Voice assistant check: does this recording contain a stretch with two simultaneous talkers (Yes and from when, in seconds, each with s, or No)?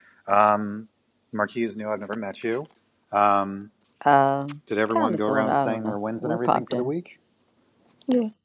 Yes, from 4.9 s